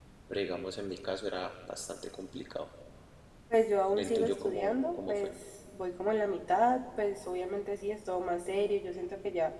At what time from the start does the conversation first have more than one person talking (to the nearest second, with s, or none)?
4 s